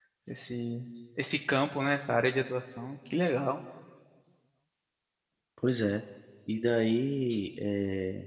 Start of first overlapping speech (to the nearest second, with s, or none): none